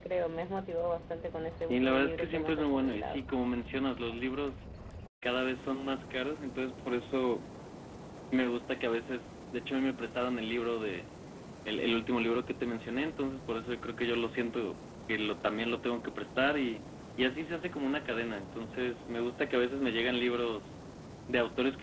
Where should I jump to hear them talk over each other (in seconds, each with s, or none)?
1.6 s